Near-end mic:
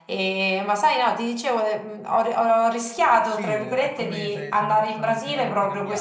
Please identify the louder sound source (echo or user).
echo